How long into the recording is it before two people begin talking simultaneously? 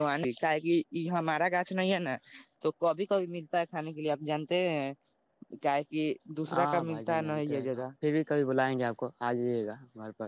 7 s

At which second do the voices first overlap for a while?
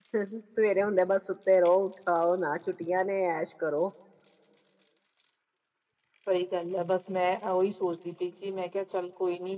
none

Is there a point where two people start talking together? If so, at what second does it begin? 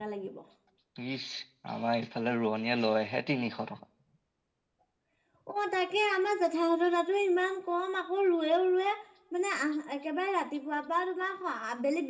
none

